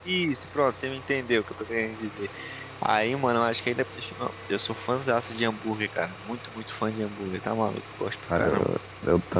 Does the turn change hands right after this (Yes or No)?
Yes